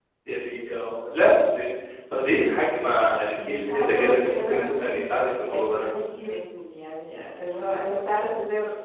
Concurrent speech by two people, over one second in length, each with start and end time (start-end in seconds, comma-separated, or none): 3.4-5.9